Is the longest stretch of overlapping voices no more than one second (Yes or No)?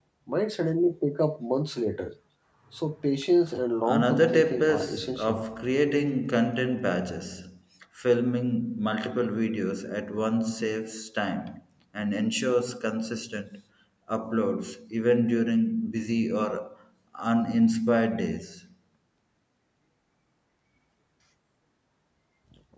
No